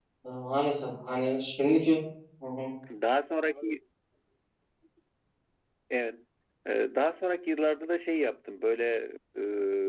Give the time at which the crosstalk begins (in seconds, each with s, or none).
none